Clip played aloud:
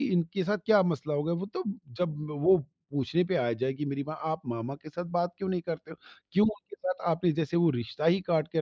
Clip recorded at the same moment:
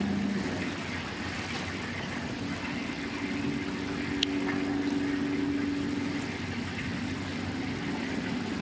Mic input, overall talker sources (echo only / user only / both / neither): neither